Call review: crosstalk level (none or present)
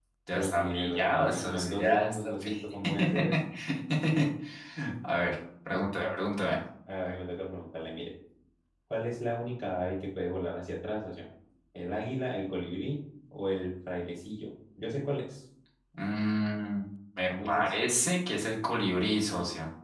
present